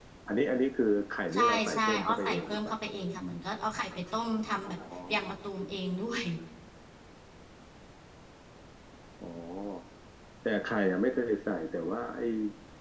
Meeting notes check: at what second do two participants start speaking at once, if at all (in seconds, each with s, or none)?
1.3 s